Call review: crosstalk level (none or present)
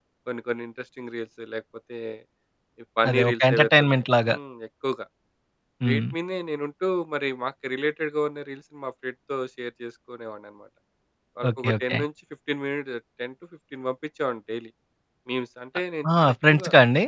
present